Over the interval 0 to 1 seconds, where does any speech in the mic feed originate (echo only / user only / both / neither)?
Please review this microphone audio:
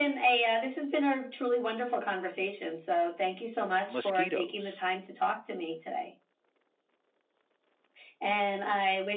echo only